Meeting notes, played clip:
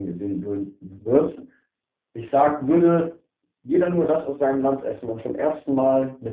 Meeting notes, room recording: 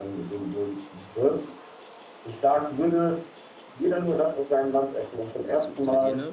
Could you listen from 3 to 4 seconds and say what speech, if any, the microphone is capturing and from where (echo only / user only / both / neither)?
echo only